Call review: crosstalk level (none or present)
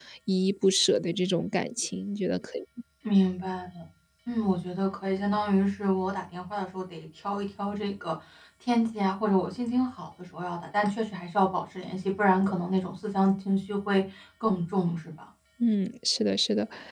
none